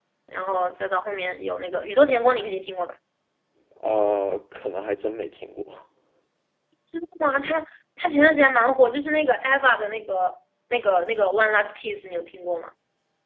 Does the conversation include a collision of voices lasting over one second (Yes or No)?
No